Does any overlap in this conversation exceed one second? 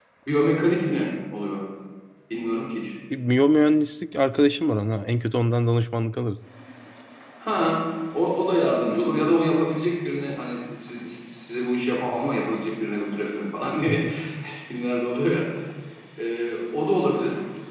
No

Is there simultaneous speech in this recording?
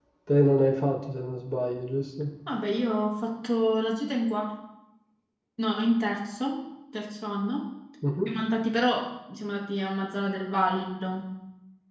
No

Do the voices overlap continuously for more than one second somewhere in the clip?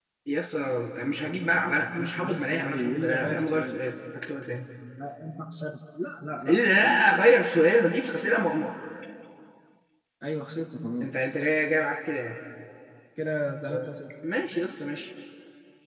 Yes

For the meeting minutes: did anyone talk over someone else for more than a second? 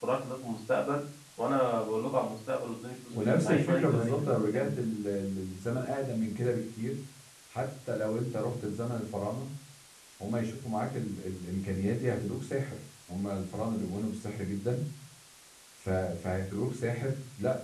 Yes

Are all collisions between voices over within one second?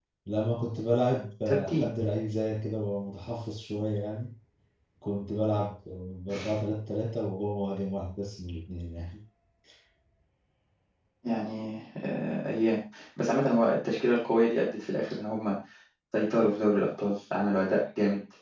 Yes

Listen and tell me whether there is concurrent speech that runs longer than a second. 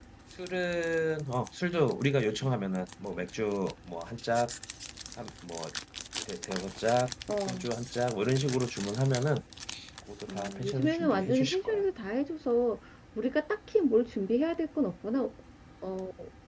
Yes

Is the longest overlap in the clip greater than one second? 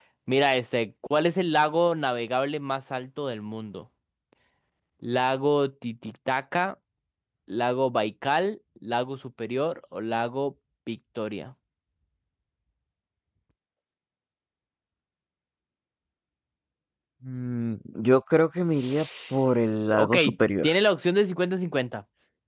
No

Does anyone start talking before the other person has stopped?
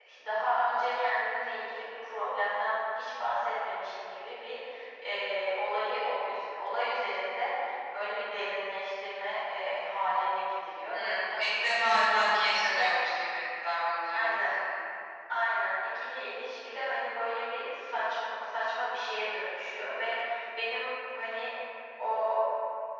Yes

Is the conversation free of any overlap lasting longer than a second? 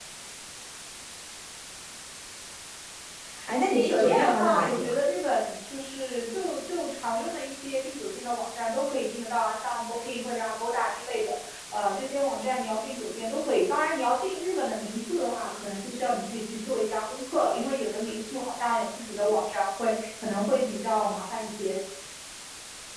No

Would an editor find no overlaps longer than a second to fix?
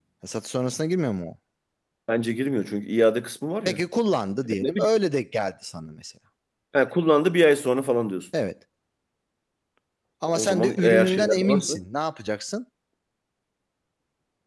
No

